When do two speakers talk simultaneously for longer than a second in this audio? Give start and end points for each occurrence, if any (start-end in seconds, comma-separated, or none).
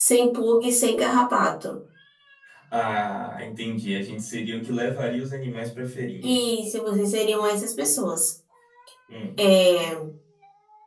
none